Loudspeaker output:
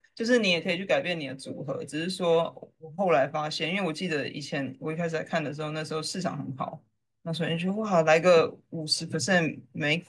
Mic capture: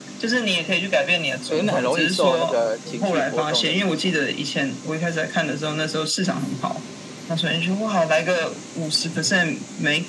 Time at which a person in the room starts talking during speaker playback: 1 s

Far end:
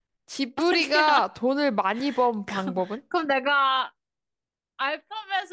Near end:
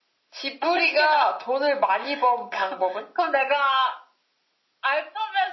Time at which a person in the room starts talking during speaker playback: none

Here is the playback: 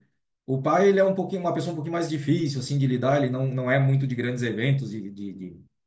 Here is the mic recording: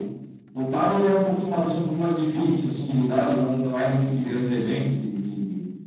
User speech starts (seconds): none

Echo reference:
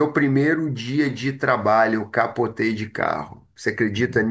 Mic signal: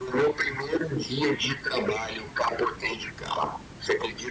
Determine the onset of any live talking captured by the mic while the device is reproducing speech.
none

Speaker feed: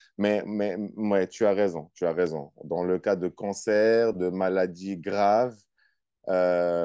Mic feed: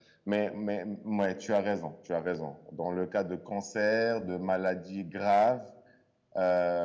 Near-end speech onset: none

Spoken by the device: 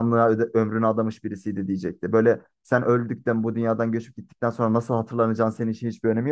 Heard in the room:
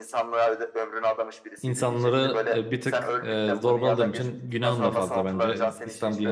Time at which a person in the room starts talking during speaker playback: 2 s

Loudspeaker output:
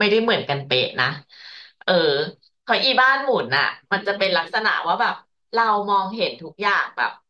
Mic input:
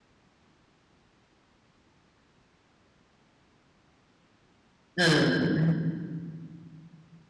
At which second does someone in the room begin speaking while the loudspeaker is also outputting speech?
5 s

